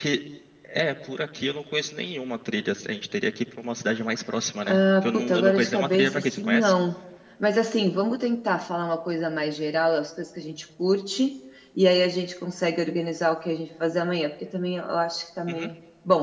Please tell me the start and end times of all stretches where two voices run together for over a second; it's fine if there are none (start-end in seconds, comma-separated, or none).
4.7-6.7